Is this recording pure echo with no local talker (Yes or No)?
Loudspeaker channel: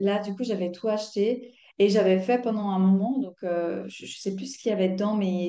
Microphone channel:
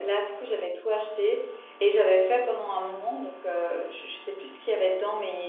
Yes